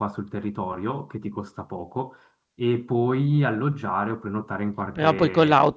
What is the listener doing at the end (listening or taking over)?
taking over